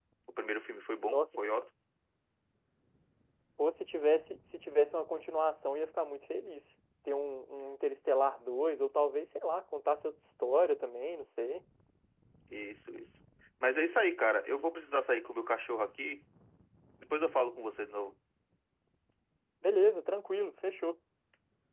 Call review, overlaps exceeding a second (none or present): none